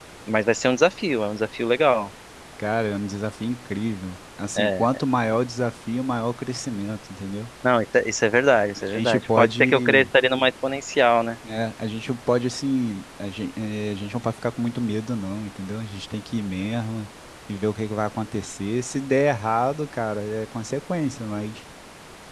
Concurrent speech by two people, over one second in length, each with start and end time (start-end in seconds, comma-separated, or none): 8.8-10.1